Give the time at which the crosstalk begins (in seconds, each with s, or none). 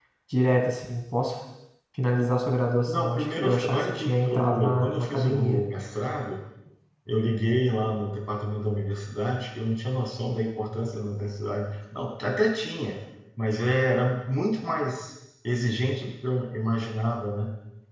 2.8 s